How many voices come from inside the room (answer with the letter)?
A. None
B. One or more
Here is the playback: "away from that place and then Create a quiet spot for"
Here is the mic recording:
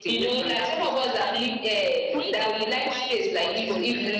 B